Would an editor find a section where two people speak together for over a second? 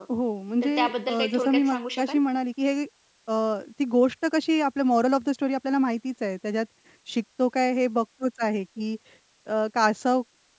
Yes, from 0.6 s

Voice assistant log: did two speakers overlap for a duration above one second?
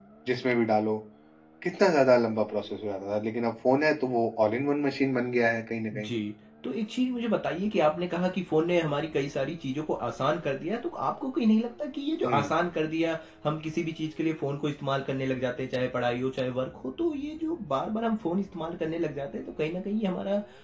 No

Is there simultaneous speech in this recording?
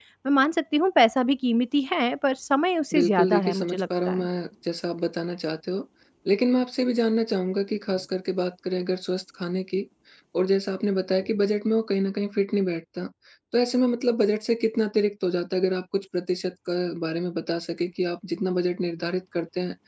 Yes, from 2.9 s

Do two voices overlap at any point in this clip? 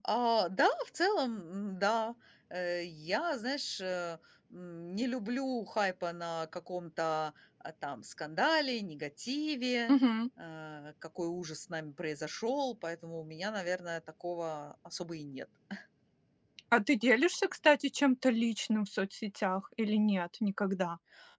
No

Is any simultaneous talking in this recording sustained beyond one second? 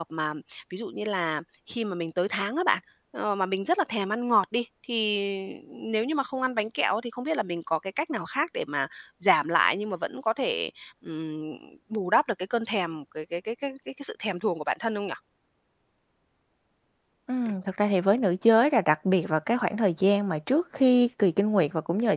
No

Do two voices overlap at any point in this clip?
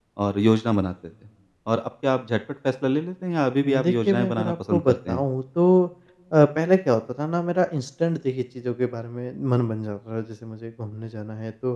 Yes, from 3.6 s

